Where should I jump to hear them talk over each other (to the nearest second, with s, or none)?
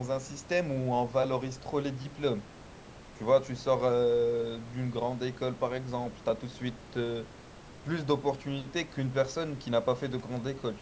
none